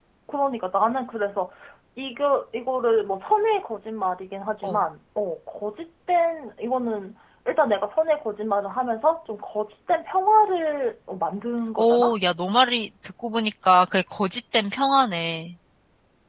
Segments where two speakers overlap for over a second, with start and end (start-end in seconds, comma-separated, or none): none